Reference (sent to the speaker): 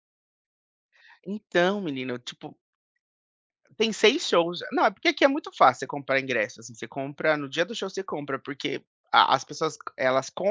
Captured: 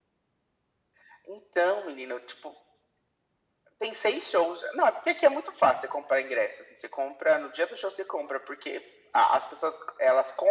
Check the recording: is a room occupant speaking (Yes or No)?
No